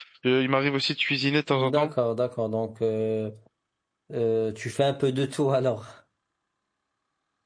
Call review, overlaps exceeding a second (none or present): none